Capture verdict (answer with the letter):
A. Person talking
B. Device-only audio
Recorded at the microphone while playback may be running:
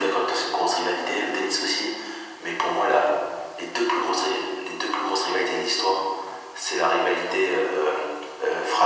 B